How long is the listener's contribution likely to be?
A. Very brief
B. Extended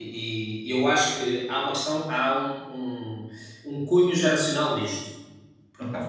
A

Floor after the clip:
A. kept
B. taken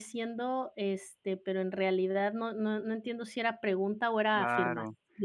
B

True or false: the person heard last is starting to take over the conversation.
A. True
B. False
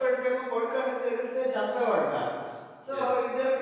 B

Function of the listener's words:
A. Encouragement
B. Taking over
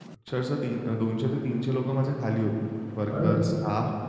A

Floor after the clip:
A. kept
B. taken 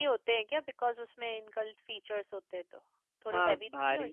B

